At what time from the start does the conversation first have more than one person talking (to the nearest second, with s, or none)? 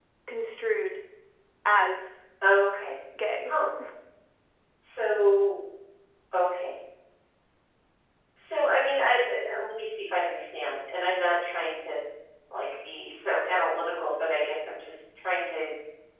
none